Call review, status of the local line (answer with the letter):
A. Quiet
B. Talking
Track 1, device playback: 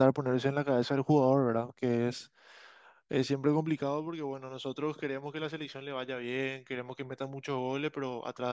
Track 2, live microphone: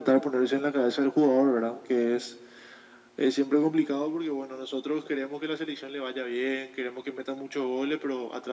A